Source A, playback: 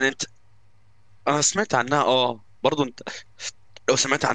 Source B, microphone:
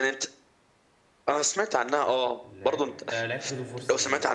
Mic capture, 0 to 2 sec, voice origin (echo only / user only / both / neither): echo only